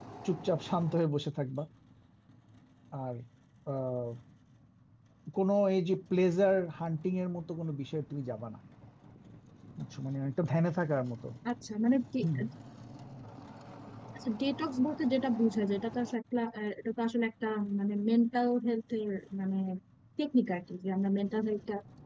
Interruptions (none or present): none